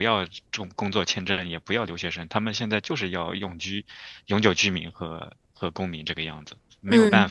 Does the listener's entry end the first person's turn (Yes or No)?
Yes